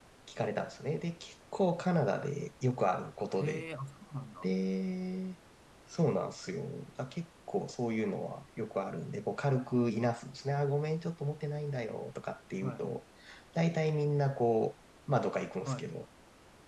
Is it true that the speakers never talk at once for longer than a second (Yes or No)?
Yes